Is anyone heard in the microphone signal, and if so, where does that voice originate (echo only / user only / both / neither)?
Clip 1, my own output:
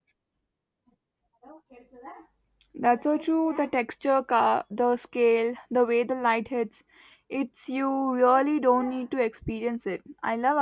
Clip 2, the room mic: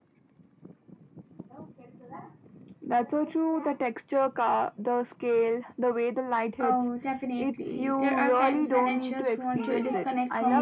both